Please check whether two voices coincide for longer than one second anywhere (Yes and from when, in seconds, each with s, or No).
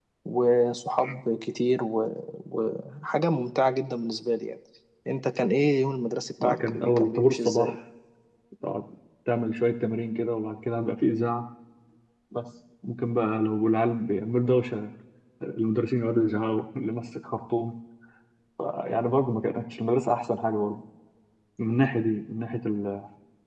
Yes, from 6.4 s